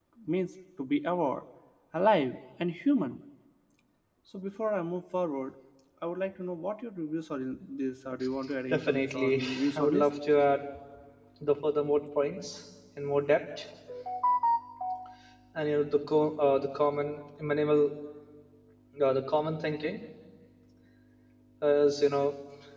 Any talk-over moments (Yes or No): Yes